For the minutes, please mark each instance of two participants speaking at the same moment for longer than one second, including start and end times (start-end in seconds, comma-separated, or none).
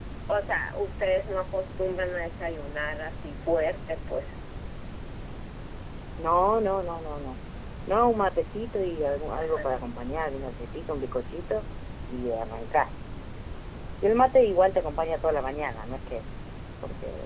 none